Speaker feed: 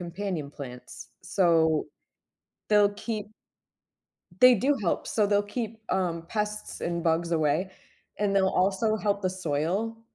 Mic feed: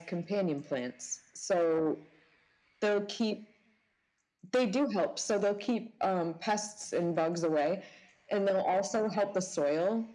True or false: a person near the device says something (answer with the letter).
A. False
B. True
A